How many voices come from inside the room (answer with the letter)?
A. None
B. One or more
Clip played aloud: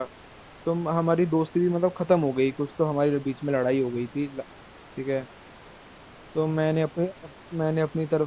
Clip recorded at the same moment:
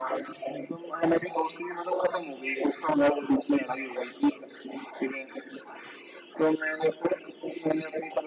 A